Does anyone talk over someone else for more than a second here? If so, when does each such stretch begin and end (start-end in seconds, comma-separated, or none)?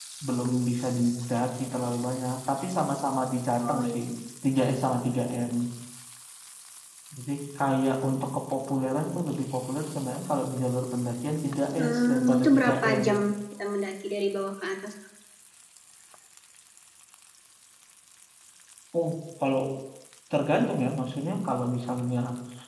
11.8-13.0